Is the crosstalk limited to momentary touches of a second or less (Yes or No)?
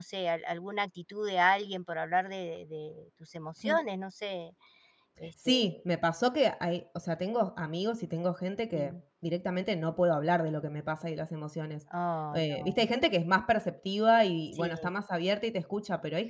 Yes